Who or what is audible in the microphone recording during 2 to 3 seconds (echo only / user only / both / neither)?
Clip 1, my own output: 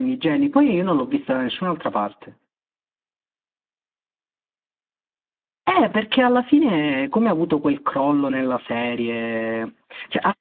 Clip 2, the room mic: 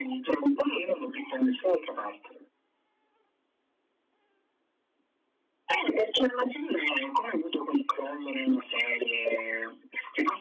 echo only